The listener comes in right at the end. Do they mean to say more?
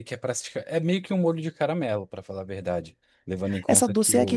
Yes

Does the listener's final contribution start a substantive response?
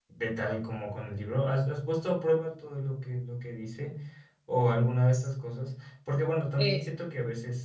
No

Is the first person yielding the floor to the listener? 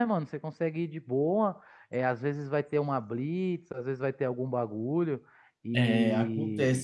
Yes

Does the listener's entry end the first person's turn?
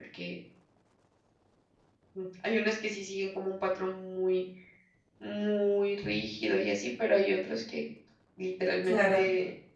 No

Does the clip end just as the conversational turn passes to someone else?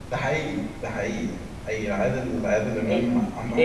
Yes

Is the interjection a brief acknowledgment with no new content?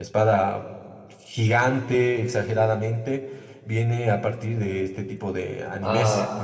No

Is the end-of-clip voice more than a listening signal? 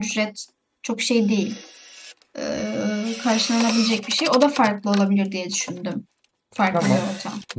Yes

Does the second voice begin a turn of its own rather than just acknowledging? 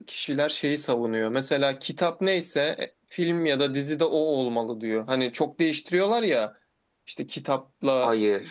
No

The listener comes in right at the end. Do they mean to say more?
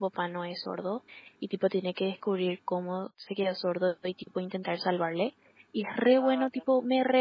No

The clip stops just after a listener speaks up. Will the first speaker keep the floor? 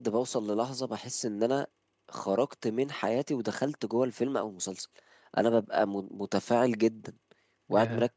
Yes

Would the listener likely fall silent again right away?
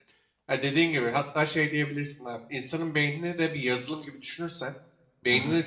Yes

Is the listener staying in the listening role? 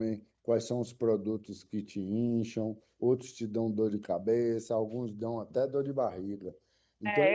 No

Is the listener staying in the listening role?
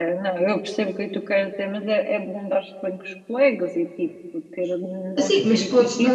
No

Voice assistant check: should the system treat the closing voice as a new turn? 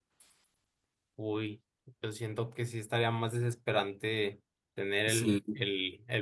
No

